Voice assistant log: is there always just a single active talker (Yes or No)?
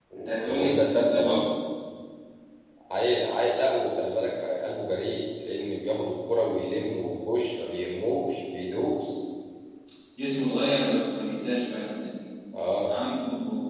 No